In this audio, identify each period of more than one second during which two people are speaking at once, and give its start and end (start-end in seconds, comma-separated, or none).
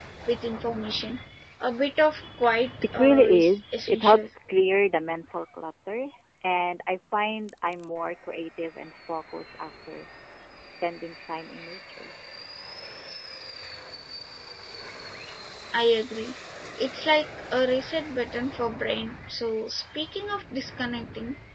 2.9-4.3